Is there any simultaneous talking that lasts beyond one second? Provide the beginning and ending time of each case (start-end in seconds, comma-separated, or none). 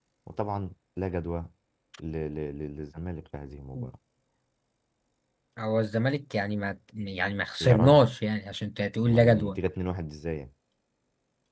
none